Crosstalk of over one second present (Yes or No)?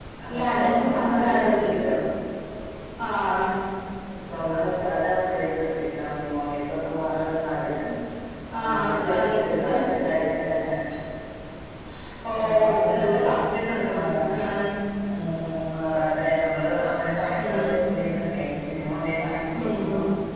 Yes